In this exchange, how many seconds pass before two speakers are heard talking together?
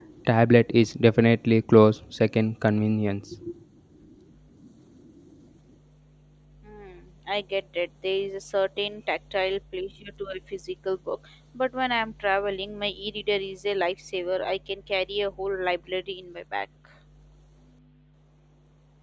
none

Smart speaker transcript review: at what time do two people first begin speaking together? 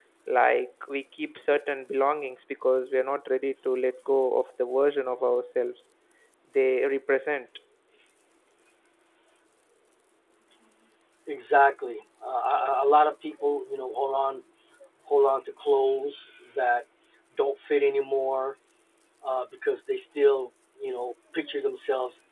none

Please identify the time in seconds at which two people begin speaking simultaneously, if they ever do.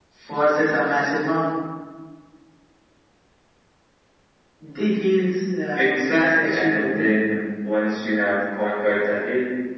6 s

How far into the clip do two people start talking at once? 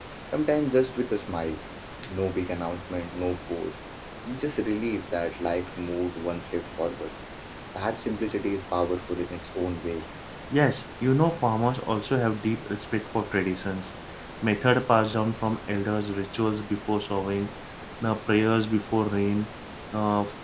none

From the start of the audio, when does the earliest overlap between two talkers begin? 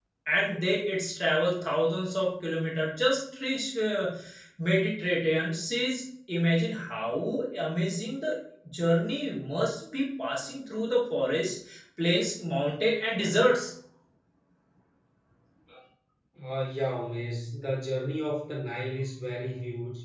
none

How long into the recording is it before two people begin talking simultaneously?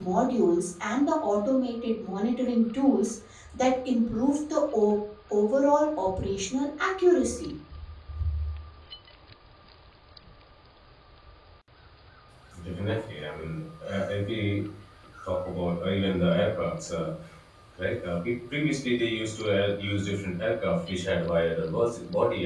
none

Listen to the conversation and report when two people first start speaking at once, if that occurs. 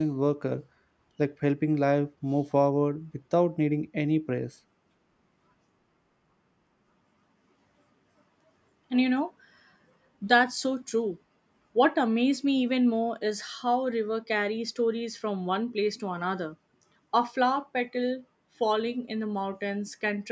none

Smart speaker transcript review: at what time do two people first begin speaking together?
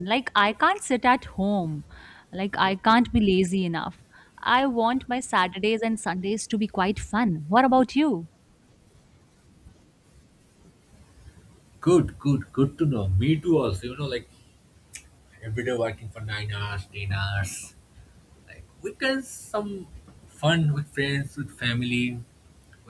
none

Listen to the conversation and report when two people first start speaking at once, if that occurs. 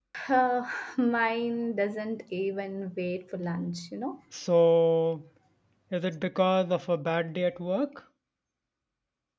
none

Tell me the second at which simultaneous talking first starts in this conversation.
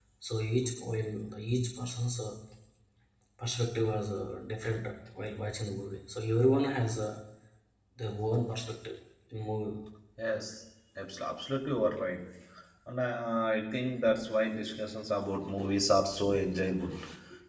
none

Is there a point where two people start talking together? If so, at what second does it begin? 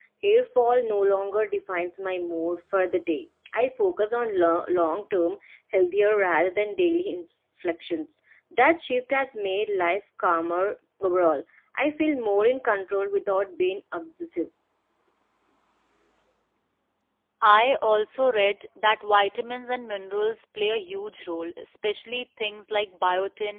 none

